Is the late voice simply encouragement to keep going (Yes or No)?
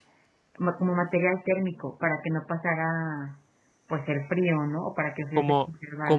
No